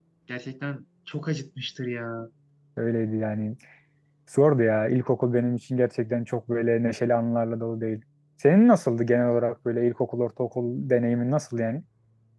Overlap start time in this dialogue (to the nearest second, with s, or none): none